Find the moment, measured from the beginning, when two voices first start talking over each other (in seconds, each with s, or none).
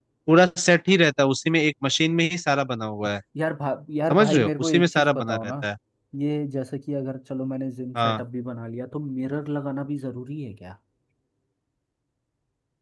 4.1 s